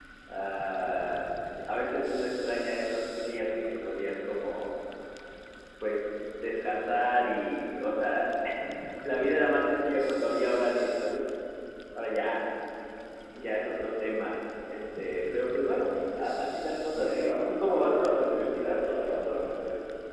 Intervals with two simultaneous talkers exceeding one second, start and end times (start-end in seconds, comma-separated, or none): 16.9-19.4